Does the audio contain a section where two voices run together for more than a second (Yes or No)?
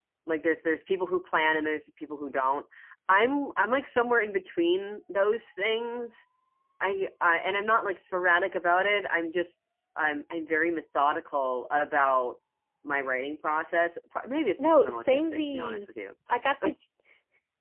Yes